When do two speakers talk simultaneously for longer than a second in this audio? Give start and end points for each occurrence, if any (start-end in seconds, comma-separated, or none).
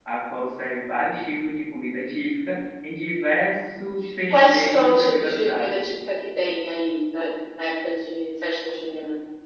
4.3-5.8